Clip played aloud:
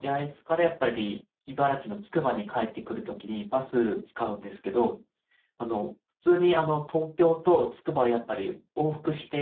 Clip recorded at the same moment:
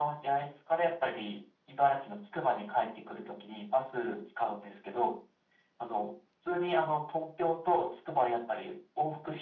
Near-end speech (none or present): none